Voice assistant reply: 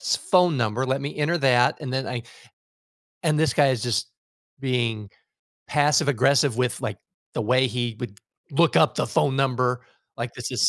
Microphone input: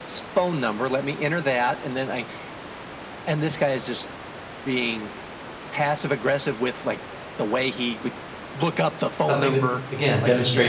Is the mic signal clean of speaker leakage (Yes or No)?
No